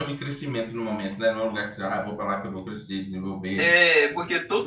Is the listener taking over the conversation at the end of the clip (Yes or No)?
Yes